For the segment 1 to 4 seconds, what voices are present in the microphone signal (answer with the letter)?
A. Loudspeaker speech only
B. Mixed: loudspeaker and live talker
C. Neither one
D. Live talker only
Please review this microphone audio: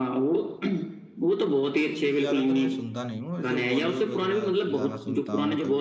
B